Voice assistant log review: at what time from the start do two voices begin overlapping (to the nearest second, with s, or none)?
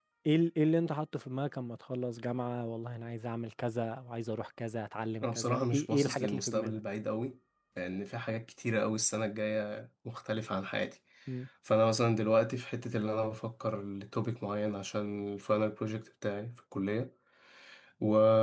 5 s